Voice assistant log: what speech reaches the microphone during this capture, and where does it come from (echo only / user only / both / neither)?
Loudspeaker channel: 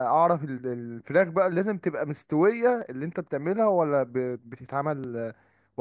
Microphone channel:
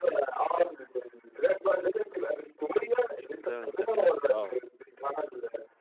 both